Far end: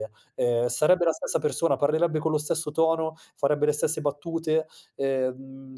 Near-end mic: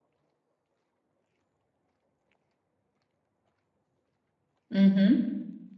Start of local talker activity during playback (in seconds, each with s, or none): 4.7 s